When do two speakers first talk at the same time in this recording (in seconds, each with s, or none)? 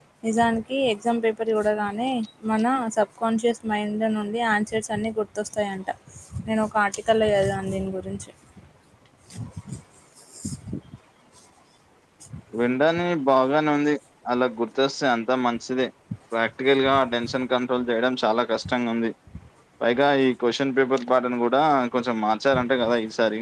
none